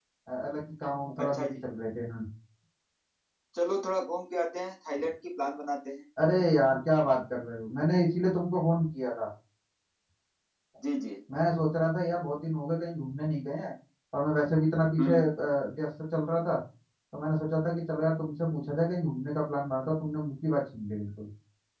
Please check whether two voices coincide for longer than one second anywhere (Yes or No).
No